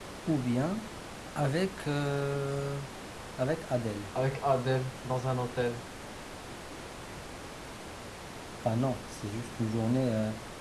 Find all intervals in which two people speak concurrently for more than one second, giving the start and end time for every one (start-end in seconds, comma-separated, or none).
none